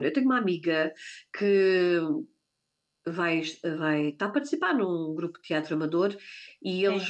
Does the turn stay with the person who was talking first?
Yes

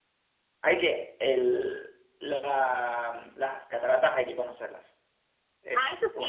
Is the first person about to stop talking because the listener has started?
Yes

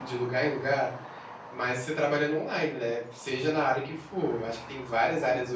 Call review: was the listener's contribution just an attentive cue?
Yes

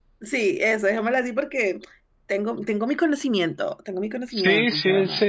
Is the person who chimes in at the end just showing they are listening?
No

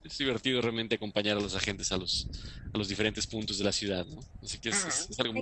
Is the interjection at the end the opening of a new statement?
Yes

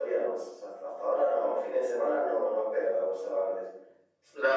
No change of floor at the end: No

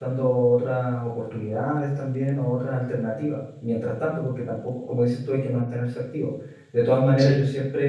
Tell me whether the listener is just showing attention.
Yes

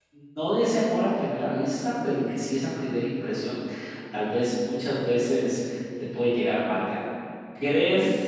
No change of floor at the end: Yes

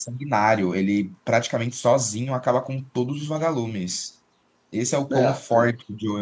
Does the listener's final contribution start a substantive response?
No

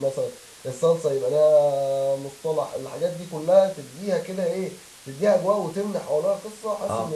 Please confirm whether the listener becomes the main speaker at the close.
Yes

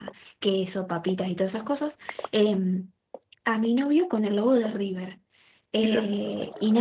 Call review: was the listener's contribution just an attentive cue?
Yes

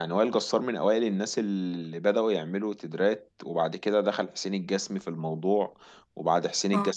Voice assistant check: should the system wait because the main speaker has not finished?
Yes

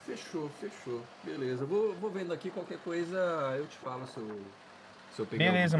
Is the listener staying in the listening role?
No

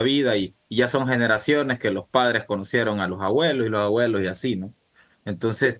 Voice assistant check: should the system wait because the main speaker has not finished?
Yes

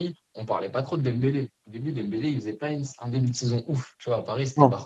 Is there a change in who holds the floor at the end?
No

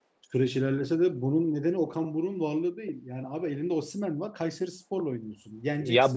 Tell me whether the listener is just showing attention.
No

